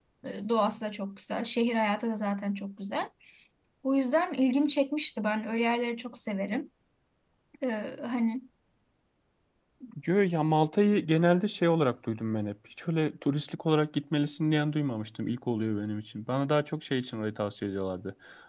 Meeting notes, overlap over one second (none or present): none